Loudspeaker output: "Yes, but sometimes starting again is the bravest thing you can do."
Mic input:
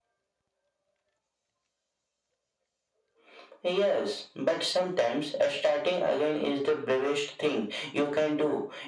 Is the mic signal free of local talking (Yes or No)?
Yes